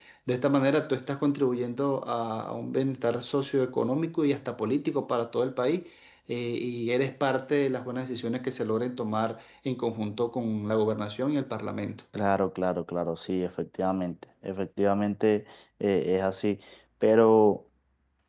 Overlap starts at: none

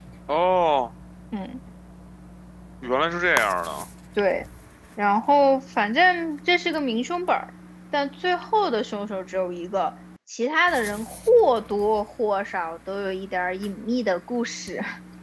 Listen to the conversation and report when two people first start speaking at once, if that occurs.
none

